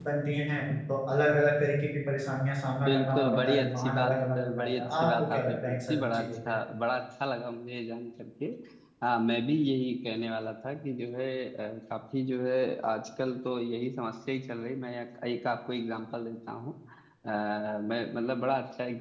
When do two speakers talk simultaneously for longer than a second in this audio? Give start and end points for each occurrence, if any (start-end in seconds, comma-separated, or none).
2.8-6.5